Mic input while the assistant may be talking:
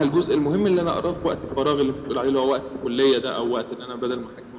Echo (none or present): present